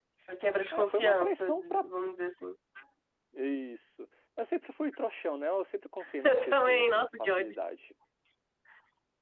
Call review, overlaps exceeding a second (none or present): present